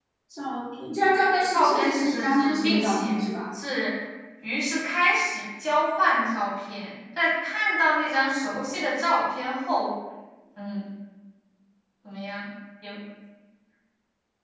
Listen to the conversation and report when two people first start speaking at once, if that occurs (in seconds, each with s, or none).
1.5 s